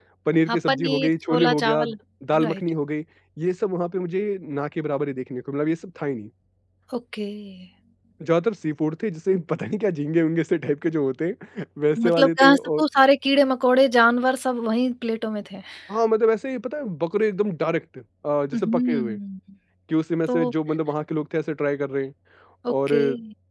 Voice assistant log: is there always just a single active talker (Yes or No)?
No